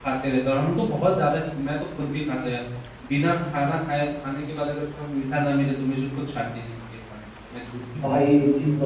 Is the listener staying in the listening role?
No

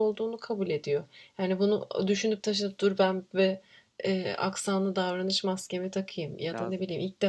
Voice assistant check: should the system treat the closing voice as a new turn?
No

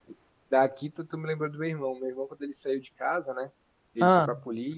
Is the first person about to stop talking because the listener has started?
No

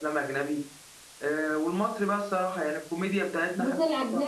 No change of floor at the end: No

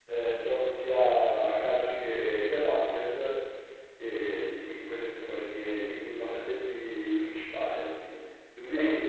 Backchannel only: Yes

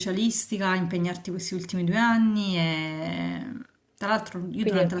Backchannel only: Yes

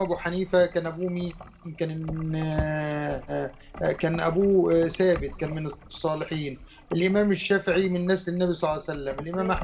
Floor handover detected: No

